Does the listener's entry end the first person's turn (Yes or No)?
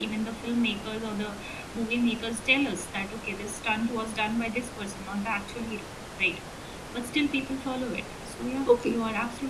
Yes